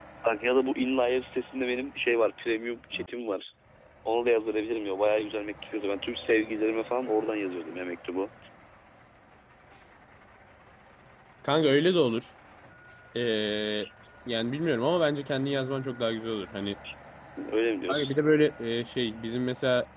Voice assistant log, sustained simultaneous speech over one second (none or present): none